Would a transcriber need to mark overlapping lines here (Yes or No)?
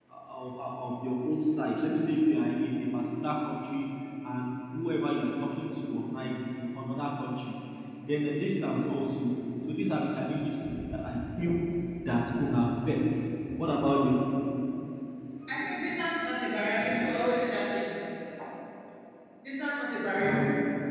No